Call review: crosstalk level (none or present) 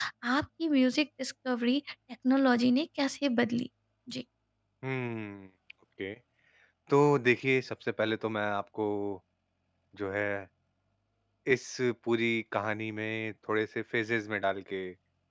none